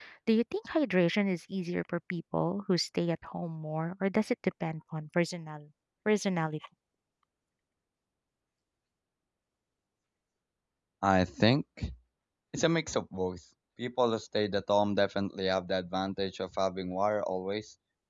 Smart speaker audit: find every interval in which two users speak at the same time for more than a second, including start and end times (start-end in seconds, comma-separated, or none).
none